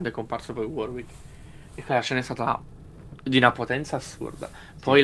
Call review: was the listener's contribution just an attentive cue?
Yes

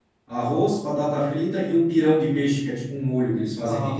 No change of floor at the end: No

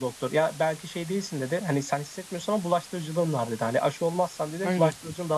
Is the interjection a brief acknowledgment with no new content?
Yes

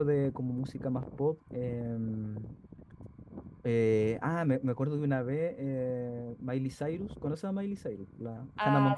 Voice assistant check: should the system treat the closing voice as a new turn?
Yes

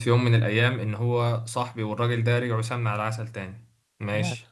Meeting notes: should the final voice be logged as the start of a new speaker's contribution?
No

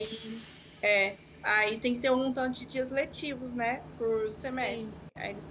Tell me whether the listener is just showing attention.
Yes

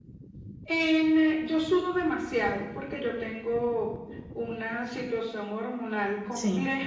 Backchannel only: Yes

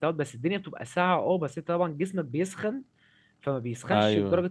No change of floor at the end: Yes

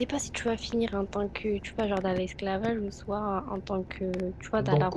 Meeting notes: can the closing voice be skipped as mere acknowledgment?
No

